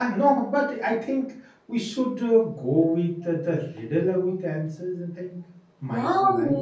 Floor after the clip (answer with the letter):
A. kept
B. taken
B